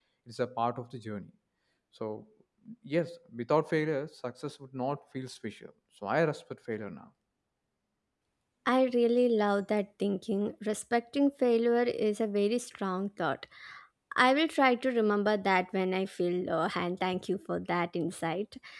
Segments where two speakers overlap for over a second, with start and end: none

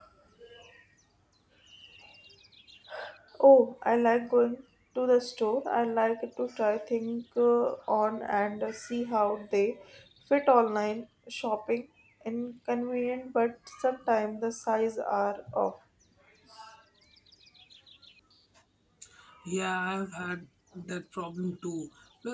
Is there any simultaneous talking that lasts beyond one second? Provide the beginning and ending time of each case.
none

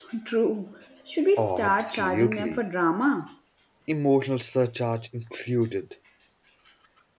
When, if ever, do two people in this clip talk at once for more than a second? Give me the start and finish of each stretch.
1.4-2.6

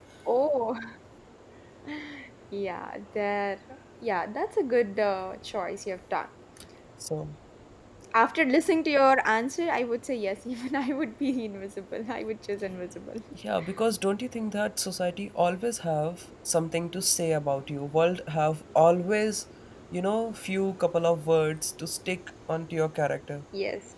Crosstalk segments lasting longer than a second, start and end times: none

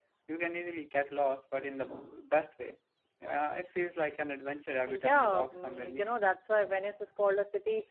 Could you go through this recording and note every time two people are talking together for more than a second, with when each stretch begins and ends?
4.9-6.1

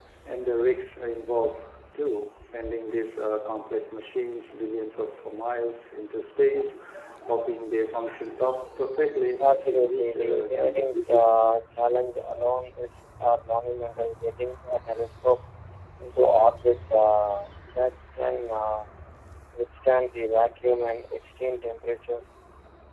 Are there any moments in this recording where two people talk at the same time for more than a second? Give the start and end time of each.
9.4-10.9

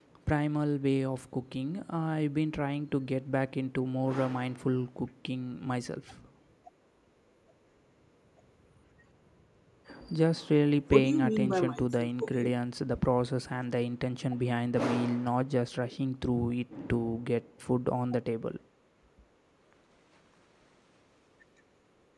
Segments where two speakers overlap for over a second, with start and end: 10.9-12.5

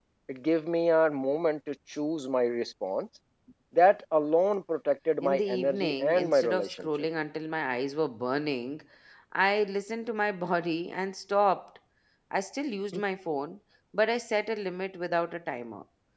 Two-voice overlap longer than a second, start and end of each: 5.2-6.9

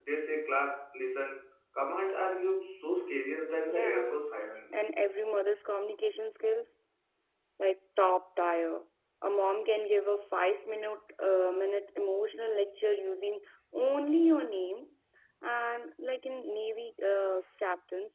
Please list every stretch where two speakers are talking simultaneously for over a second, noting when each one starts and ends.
none

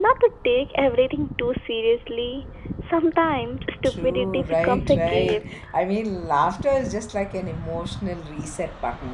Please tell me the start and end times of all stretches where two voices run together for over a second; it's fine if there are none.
3.8-5.5

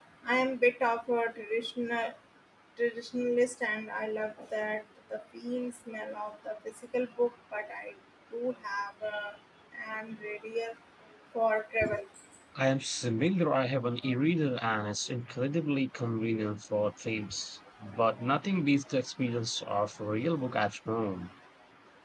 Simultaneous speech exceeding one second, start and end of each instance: none

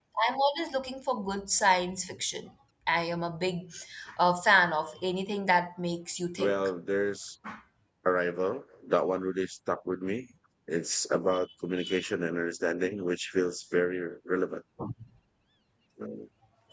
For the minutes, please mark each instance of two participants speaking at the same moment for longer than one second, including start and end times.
none

